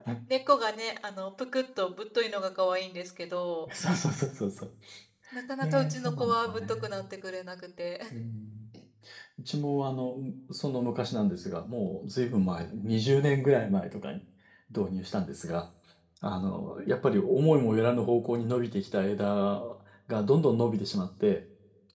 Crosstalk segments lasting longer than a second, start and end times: 5.6-6.9

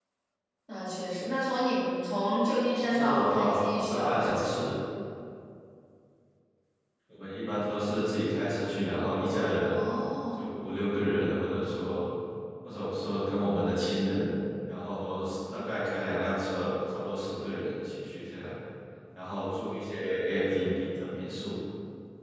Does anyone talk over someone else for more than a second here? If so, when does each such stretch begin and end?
2.8-4.5

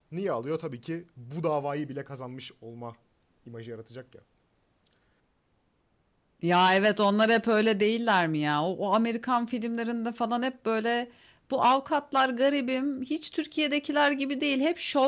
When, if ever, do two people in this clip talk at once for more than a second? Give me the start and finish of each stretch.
none

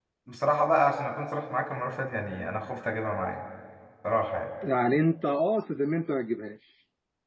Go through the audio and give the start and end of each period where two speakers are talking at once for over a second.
none

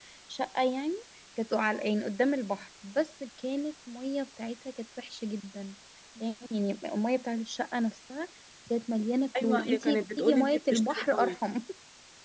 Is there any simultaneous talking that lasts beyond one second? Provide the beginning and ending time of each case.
9.4-11.4

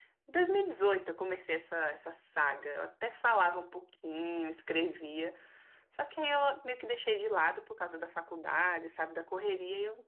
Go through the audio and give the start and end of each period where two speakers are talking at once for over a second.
none

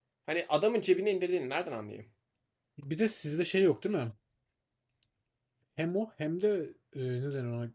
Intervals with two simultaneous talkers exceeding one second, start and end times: none

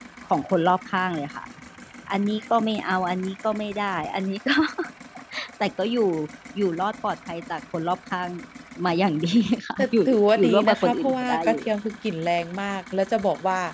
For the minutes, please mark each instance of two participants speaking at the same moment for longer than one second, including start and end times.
10.4-11.6

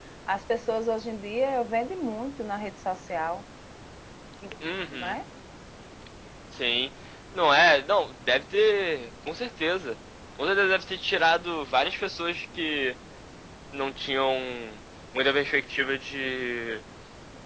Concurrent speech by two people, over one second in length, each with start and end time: none

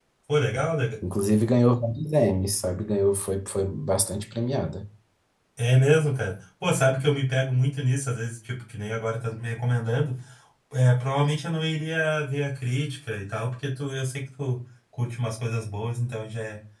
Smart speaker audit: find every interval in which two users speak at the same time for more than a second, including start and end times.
none

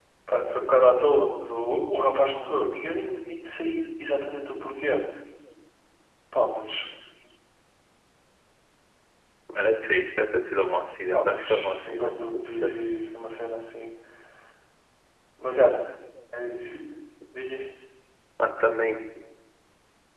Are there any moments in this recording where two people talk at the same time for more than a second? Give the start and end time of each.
11.1-12.7

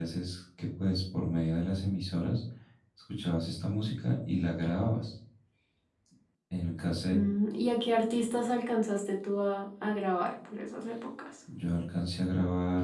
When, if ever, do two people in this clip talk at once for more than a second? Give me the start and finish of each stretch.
none

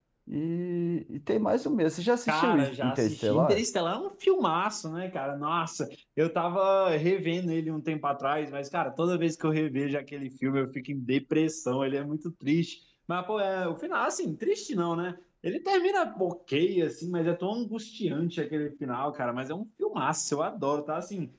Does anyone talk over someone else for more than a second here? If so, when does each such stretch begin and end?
2.3-3.6

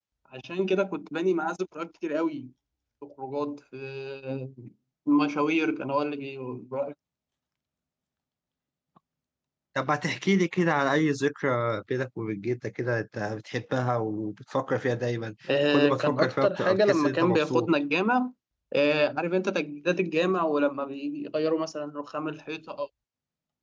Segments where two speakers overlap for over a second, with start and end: 15.7-17.7

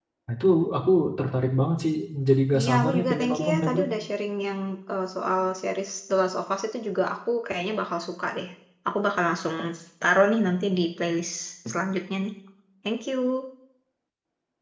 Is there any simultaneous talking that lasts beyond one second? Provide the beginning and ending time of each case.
2.5-3.8

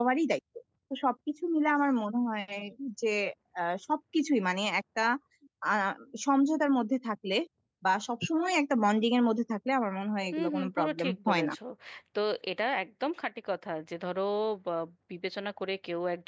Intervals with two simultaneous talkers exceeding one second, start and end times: 10.3-11.5

